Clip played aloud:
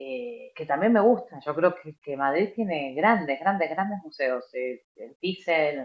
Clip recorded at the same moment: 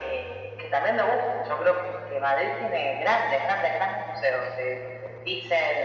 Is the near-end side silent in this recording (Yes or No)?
Yes